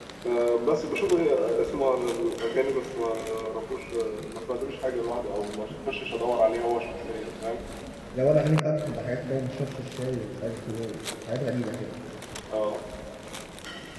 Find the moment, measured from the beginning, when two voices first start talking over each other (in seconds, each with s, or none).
none